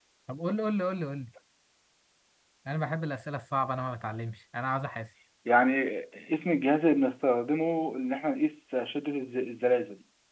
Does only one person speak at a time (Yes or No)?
Yes